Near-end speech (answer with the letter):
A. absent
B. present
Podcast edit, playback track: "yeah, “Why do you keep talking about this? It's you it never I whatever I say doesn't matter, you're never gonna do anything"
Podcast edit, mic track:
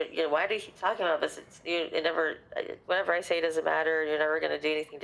A